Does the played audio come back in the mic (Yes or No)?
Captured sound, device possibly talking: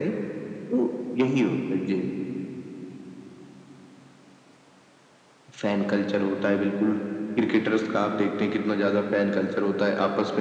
Yes